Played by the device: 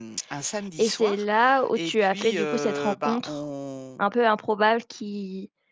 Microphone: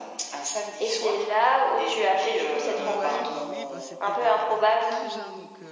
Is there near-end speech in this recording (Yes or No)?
Yes